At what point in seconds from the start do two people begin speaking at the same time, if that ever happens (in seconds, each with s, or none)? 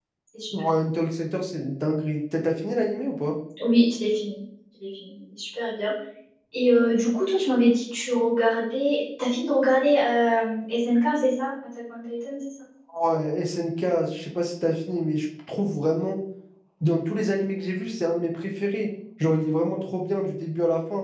none